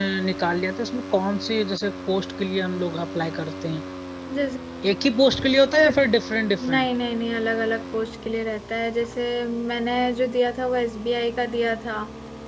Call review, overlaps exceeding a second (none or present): none